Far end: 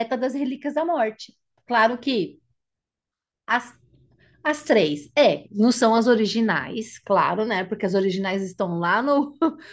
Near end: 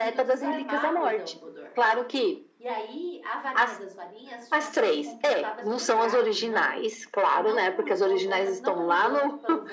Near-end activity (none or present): present